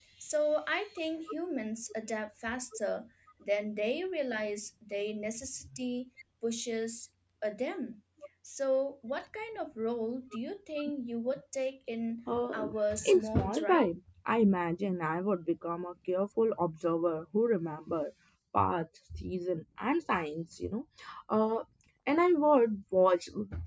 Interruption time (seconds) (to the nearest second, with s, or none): 13 s